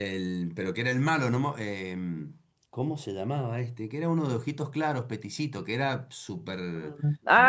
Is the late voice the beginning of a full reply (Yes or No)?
Yes